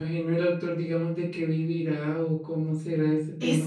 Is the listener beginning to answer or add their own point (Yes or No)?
Yes